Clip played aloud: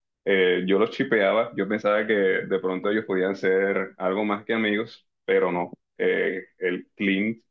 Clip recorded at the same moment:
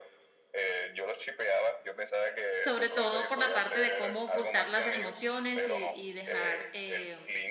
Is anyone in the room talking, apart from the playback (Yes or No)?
Yes